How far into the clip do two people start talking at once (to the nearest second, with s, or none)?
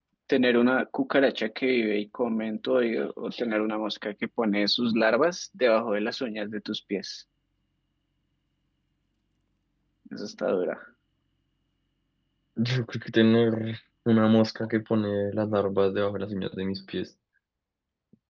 none